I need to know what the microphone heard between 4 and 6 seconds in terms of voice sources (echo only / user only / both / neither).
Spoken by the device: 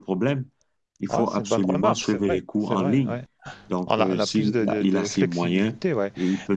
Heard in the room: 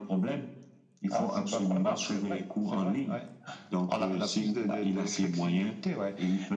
echo only